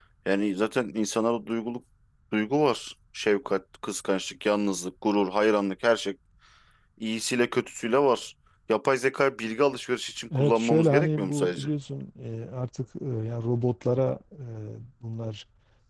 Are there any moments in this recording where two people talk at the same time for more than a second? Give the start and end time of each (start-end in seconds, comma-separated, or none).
10.3-11.7